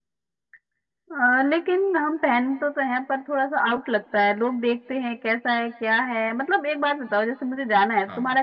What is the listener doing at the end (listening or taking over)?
listening